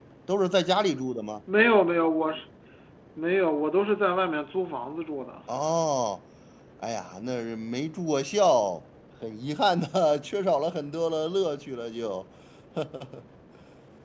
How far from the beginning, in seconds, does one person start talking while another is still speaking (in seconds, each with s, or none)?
none